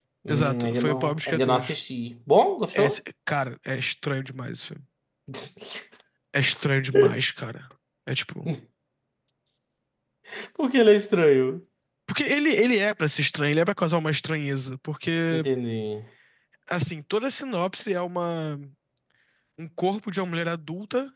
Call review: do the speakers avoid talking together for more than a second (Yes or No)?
No